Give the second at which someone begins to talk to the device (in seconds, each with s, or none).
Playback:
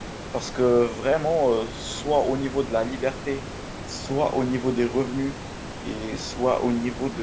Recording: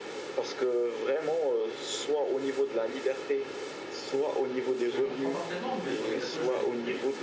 4.8 s